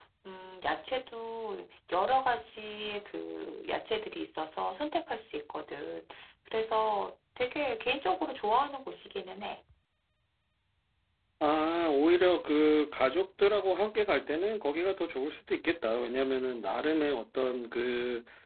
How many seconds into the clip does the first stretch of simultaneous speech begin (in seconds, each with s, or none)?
none